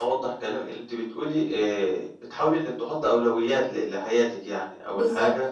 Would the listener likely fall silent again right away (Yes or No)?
Yes